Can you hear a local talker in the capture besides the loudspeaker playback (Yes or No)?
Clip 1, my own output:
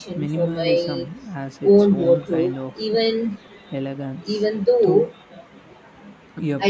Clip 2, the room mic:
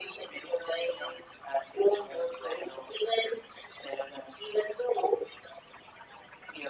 No